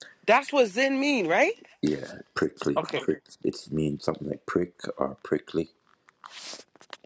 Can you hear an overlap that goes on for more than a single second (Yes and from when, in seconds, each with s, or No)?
No